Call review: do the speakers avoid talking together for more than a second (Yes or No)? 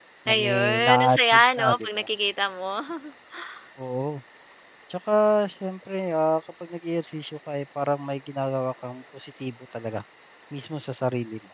No